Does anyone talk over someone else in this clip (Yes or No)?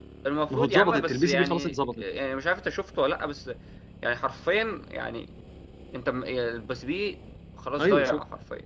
Yes